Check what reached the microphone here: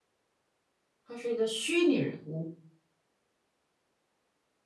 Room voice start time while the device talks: 1 s

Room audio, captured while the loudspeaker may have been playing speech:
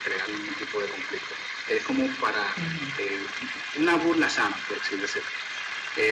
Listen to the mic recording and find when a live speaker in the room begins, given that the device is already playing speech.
3 s

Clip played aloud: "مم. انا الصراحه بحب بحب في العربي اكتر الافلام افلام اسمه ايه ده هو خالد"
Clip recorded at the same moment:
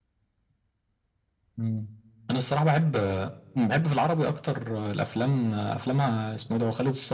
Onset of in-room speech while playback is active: none

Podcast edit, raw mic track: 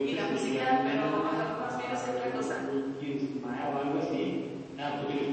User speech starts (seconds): none

